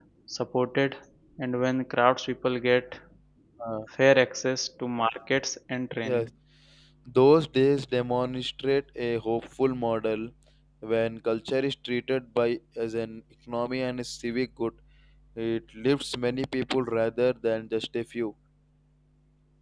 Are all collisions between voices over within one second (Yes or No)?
Yes